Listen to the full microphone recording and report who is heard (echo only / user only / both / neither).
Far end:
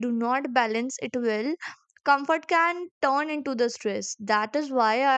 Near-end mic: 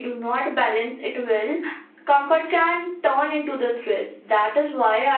echo only